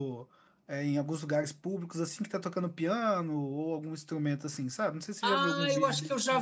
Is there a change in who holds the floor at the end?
Yes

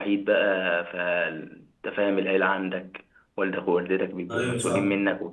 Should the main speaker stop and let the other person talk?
No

